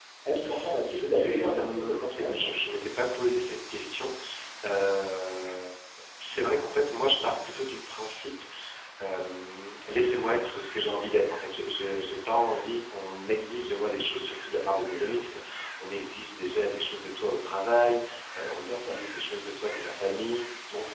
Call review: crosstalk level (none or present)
present